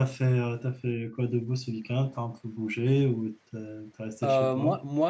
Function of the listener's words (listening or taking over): taking over